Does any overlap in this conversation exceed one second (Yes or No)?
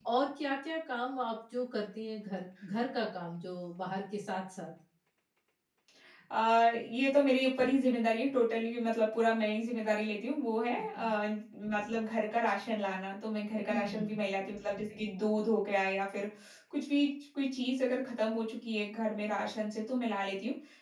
No